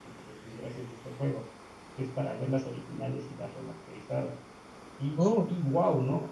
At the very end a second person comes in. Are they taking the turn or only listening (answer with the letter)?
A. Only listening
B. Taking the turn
A